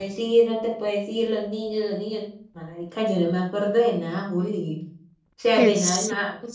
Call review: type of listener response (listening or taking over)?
taking over